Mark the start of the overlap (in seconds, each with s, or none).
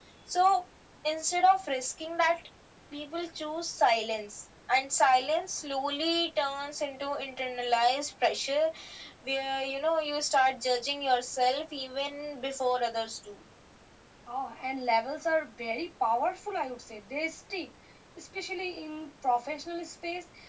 none